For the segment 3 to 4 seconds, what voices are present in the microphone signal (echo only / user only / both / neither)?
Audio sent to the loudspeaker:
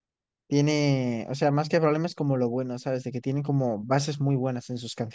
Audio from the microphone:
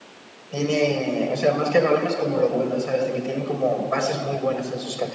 echo only